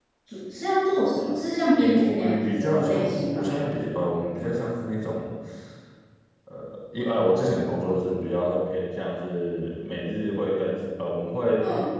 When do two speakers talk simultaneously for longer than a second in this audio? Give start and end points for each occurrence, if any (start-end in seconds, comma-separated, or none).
1.8-3.5